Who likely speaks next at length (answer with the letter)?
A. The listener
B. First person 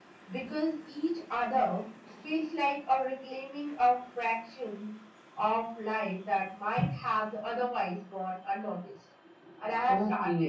A